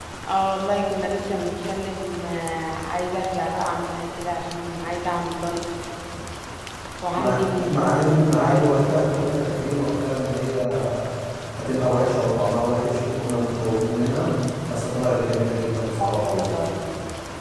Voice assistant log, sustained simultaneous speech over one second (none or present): present